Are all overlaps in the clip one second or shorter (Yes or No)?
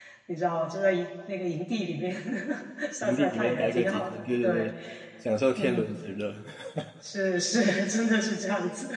No